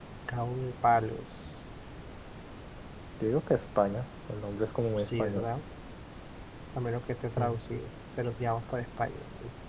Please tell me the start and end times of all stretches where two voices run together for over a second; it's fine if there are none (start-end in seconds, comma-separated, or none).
none